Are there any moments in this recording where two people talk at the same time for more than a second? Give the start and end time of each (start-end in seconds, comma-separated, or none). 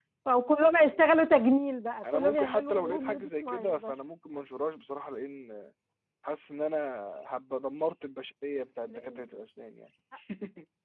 2.1-3.9